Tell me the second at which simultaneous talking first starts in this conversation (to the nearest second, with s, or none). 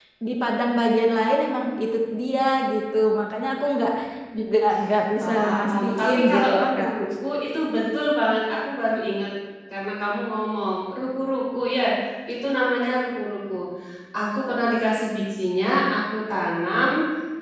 5 s